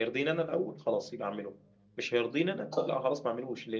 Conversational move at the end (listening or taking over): listening